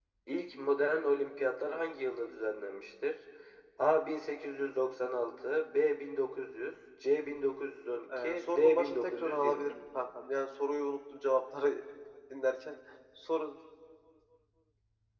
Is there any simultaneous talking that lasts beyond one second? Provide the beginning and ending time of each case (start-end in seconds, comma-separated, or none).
8.2-9.8